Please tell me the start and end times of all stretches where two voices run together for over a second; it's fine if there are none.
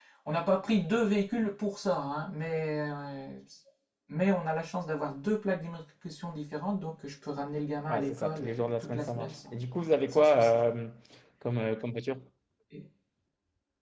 7.9-9.5

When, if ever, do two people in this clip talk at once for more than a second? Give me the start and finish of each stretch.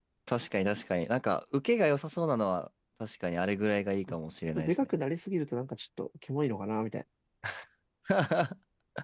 none

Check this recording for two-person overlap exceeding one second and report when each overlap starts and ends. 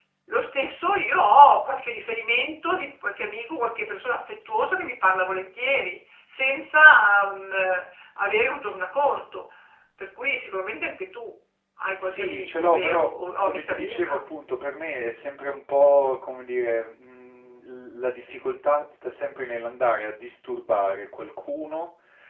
12.0-14.2

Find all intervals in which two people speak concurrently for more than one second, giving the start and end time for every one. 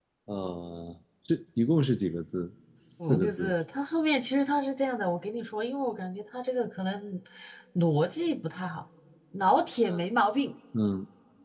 none

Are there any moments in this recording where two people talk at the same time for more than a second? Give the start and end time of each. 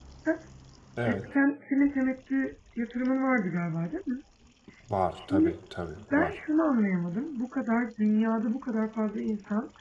none

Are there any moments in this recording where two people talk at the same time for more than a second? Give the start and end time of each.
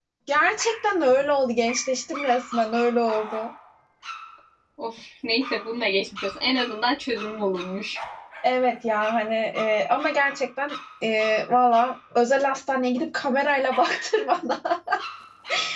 none

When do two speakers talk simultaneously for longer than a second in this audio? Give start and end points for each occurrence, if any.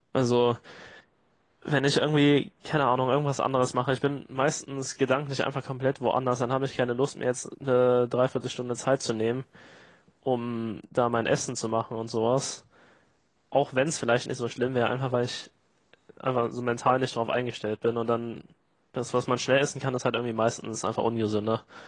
none

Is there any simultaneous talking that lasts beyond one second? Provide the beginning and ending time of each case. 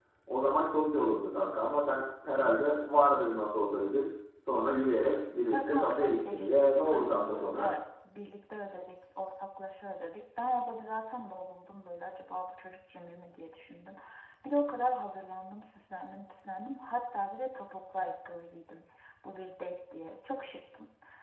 5.5-7.7

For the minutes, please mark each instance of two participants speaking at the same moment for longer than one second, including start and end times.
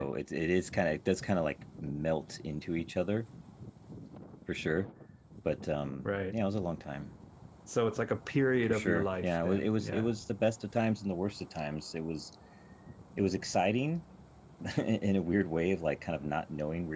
8.7-10.1

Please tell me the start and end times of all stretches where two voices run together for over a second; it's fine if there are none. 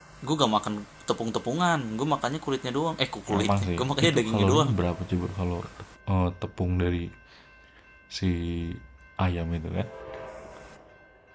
3.4-4.7

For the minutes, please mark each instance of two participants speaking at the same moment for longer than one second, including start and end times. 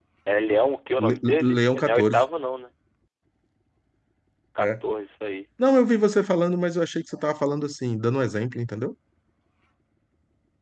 1.0-2.2

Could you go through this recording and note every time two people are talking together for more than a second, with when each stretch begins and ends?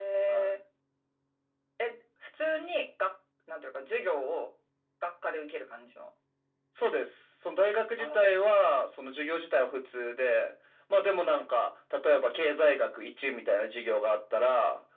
none

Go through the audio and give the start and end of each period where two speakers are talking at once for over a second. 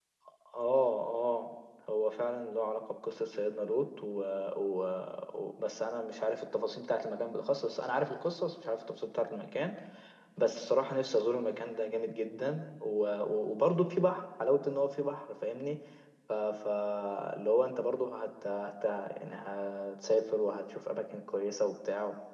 none

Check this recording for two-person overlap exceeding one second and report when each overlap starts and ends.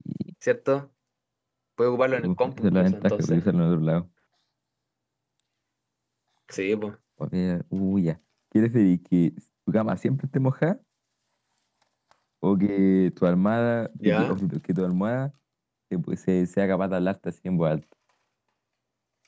2.2-3.4

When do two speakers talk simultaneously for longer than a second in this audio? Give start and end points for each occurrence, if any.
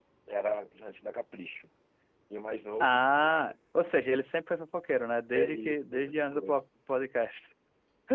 5.3-6.6

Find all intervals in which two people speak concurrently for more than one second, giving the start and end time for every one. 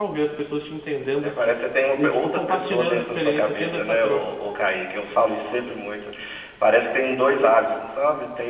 1.9-4.2

